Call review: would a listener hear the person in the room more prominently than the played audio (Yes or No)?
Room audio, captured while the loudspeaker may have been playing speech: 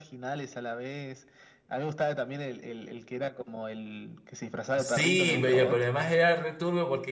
Yes